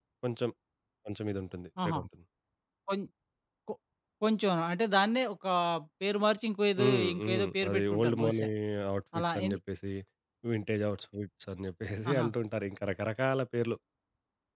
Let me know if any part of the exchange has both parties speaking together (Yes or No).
Yes